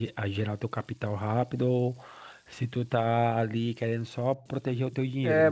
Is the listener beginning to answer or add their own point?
Yes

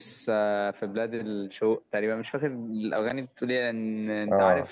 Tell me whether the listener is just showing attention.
Yes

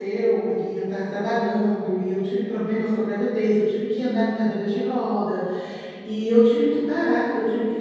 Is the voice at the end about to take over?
No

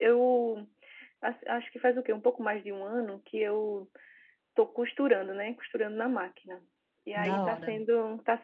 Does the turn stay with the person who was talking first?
Yes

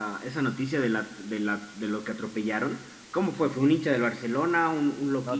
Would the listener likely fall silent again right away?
No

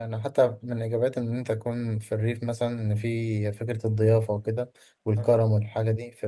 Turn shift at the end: No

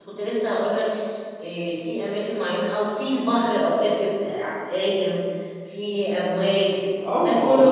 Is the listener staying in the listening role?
No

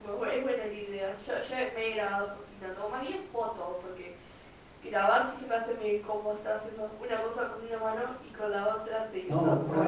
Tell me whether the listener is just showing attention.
No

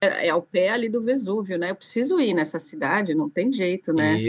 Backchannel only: No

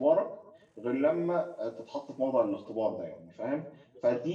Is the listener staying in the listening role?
Yes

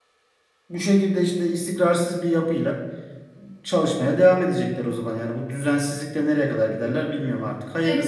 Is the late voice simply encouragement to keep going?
No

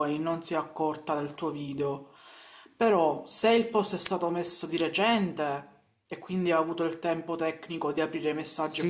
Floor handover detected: Yes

